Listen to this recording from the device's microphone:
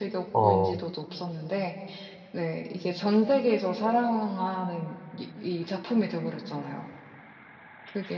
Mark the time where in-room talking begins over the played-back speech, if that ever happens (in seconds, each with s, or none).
0.3 s